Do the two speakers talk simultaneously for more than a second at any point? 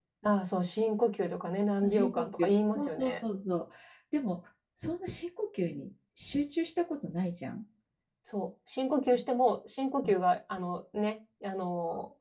Yes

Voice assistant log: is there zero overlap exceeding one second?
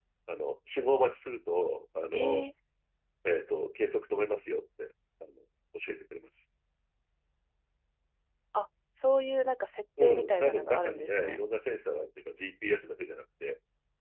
No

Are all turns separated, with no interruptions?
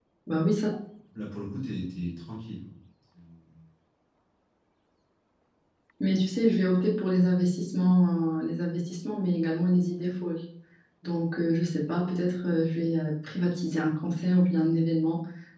Yes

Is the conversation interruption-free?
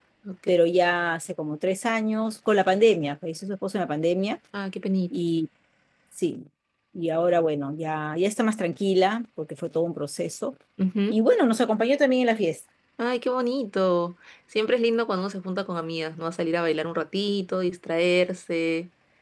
Yes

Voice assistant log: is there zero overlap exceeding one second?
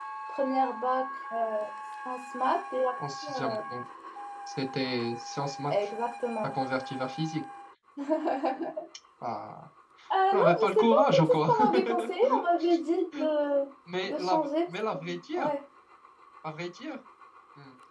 No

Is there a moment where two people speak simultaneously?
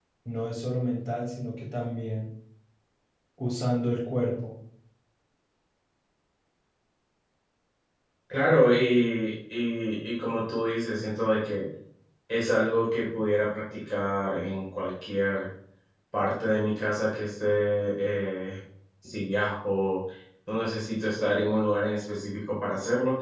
No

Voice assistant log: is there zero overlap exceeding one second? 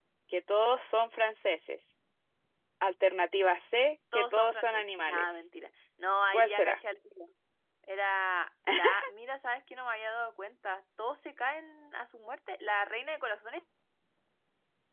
No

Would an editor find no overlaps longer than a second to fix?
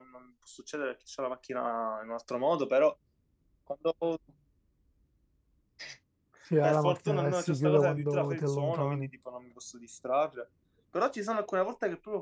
No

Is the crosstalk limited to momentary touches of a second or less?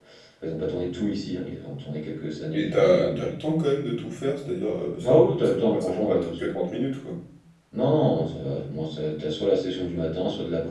No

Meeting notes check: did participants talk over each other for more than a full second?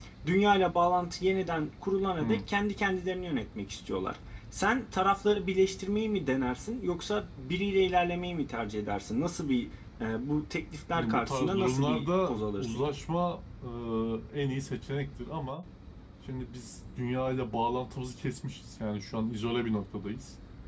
Yes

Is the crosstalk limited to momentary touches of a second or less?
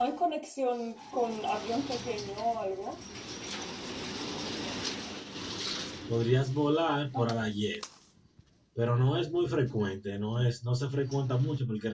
Yes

